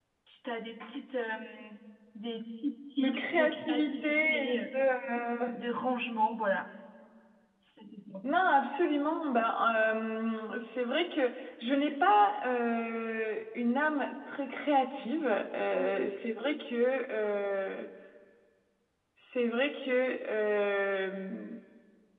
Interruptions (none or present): present